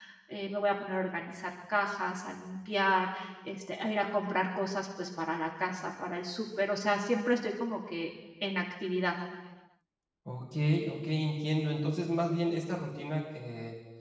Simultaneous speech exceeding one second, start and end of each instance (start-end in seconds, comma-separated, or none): none